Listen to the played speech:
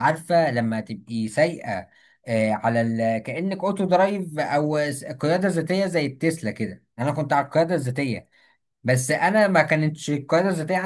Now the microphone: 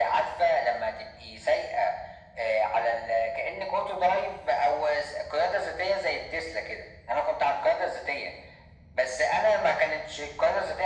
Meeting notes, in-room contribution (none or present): none